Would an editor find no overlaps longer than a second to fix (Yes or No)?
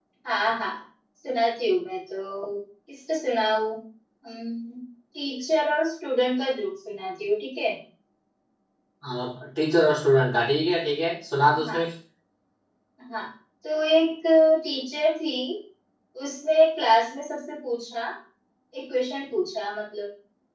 Yes